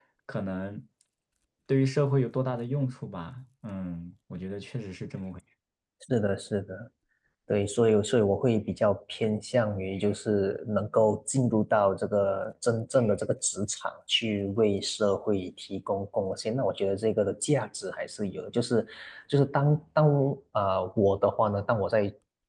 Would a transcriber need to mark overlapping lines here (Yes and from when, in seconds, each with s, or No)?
No